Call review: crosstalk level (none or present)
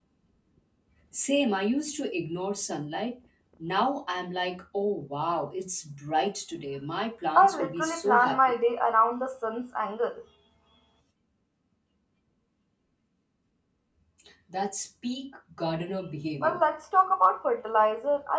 present